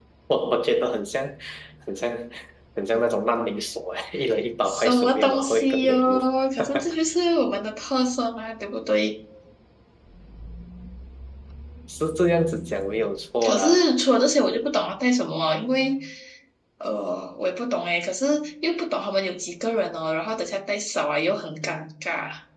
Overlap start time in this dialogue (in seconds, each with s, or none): 4.7 s